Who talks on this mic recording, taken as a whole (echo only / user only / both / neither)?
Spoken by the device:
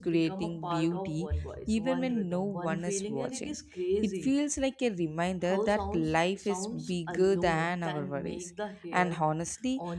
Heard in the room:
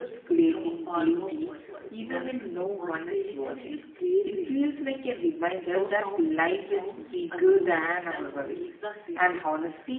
echo only